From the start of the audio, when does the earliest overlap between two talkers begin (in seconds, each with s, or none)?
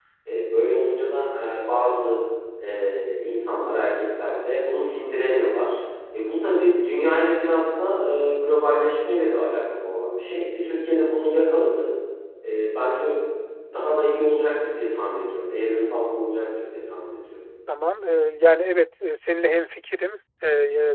none